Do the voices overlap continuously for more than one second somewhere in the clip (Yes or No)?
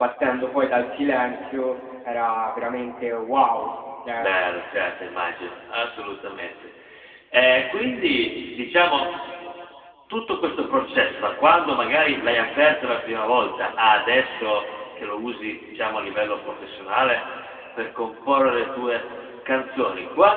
No